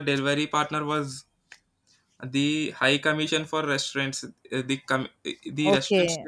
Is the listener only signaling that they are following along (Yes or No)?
No